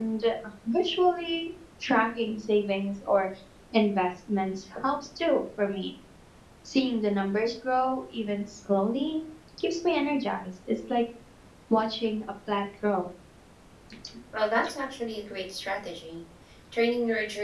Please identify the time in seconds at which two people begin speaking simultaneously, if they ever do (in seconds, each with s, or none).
none